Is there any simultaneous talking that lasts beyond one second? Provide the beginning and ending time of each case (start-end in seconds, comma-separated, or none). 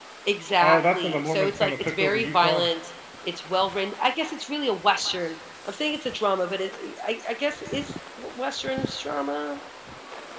0.6-2.7